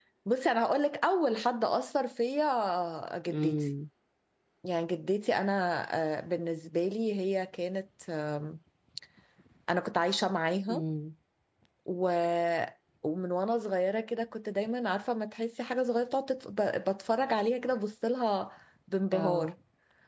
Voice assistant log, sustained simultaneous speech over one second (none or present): none